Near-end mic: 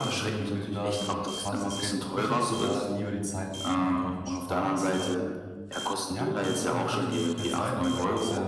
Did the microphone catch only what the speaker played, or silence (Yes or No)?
No